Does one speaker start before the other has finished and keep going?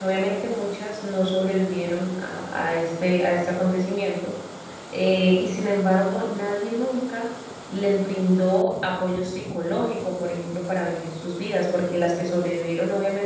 No

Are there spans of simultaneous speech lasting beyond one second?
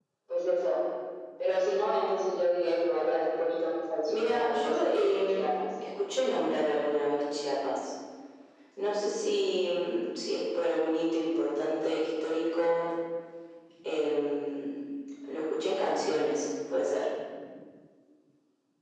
Yes, from 4.1 s

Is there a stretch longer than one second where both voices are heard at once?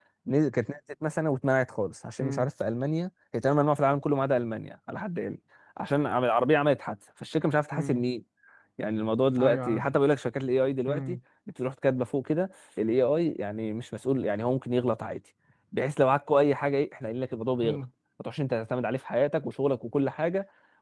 No

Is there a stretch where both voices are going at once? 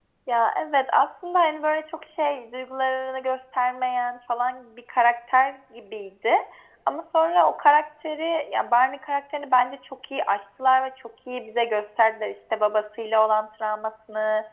No

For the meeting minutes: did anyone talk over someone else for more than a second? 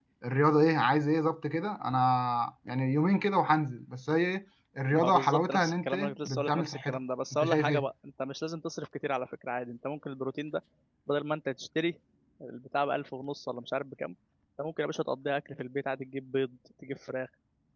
Yes, from 4.9 s

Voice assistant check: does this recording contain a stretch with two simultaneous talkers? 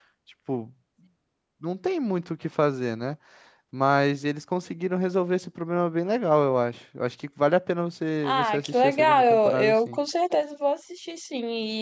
Yes, from 8.2 s

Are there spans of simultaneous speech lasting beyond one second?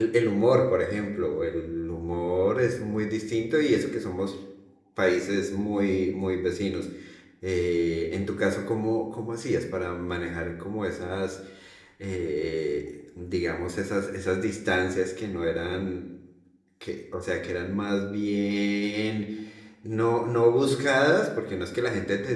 No

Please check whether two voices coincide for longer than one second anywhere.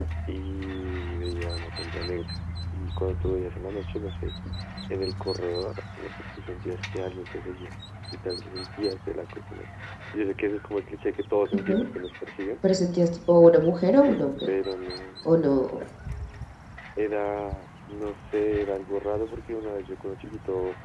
No

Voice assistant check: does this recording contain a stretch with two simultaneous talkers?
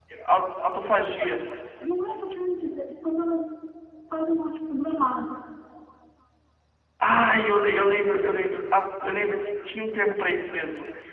No

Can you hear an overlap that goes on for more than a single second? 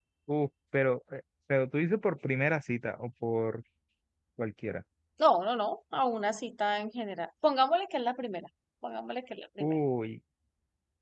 No

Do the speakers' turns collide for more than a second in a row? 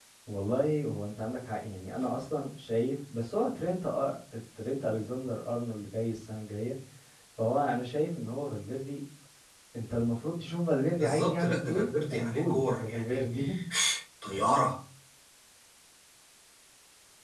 Yes, from 11.0 s

